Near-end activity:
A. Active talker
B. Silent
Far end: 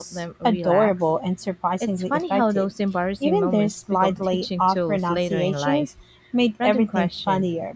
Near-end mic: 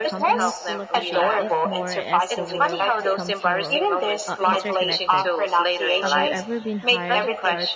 A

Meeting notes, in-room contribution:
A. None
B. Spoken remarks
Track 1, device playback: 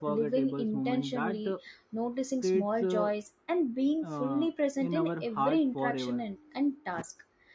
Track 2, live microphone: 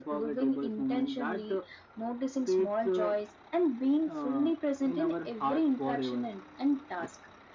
A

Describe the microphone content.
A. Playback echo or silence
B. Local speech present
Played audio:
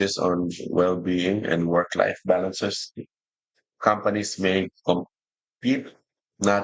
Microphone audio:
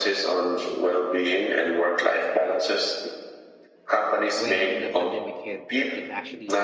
B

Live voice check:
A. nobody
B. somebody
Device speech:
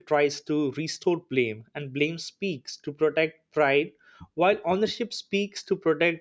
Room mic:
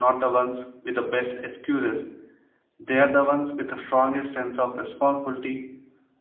B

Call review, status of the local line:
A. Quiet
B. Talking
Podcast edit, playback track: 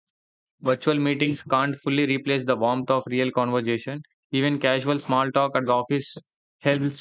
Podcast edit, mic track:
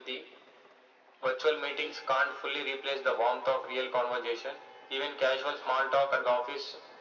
A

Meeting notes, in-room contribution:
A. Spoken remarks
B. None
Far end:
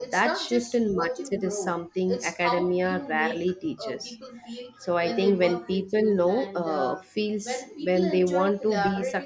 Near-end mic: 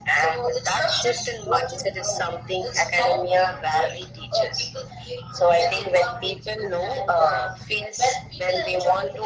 B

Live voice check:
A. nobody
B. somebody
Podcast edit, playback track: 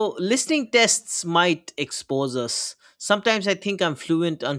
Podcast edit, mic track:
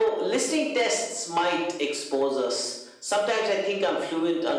A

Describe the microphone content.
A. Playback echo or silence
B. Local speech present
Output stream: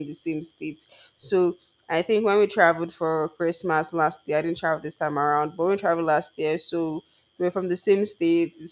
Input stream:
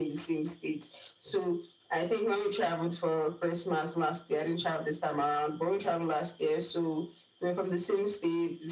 A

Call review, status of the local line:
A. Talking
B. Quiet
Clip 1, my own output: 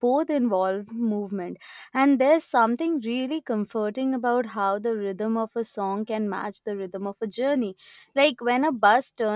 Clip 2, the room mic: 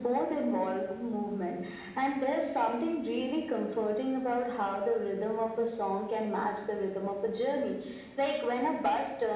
B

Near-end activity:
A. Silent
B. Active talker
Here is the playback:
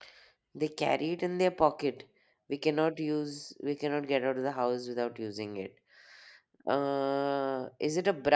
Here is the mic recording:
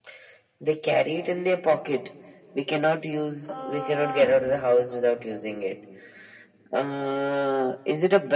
B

